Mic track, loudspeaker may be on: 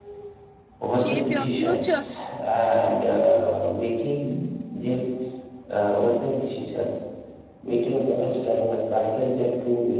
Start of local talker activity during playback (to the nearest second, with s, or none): 1 s